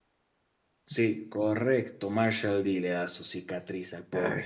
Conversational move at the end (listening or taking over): taking over